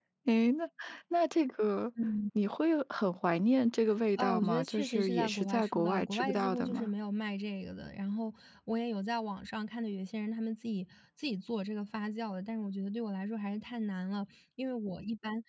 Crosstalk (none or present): present